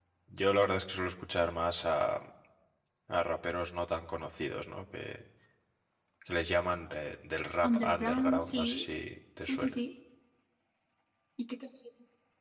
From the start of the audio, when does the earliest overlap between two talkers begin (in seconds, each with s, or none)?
7.6 s